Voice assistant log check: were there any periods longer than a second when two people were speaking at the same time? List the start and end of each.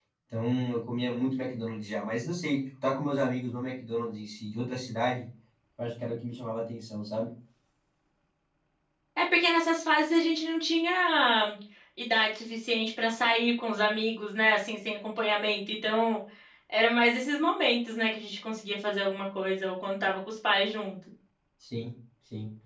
none

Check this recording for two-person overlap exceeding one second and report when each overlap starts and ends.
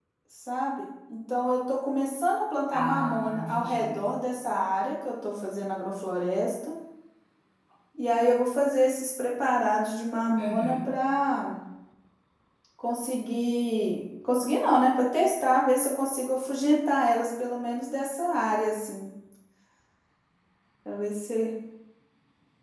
2.7-4.0

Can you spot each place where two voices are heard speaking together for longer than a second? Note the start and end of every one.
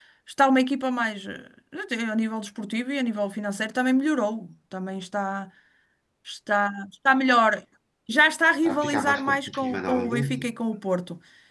8.6-10.4

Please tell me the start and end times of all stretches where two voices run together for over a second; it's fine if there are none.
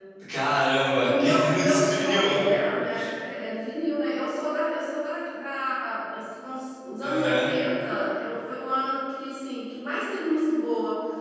1.0-2.4

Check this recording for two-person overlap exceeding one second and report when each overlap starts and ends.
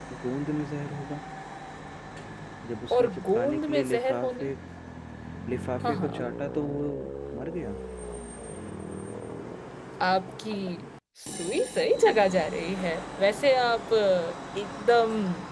2.9-4.5

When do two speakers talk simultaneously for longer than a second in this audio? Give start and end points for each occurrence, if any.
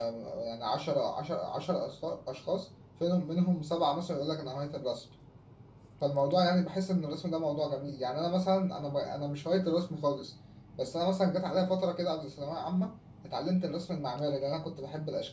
none

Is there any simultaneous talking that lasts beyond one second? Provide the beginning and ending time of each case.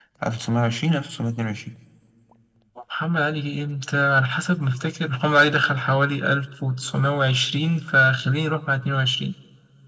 none

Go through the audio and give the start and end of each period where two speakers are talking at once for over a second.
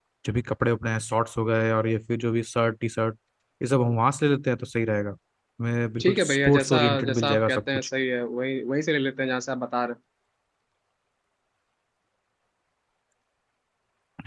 6.0-7.9

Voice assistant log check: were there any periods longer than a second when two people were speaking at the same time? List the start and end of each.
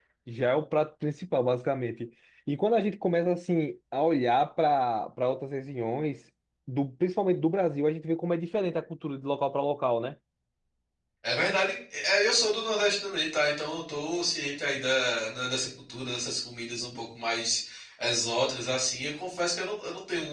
none

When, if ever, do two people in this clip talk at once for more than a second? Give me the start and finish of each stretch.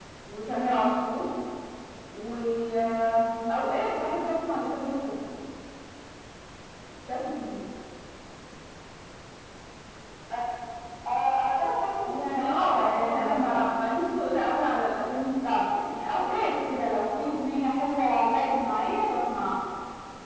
12.1-13.6

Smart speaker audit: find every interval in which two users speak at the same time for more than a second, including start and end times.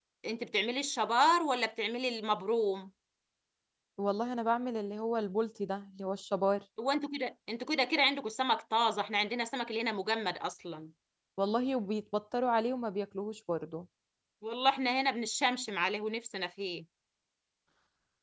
none

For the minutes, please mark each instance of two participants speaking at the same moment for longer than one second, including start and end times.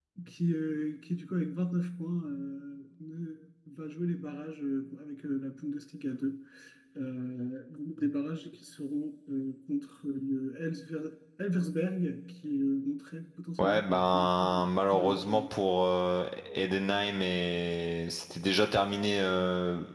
13.6-15.4

